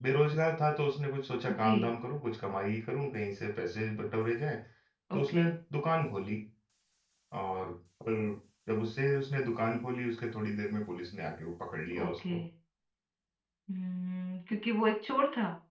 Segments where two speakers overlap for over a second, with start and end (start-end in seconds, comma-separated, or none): none